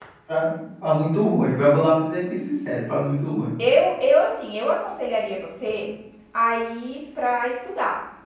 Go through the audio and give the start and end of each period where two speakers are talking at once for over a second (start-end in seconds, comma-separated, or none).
none